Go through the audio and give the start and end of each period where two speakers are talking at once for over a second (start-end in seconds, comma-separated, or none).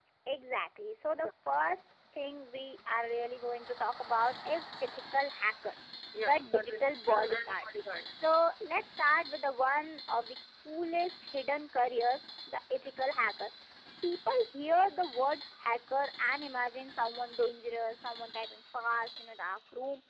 6.2-7.7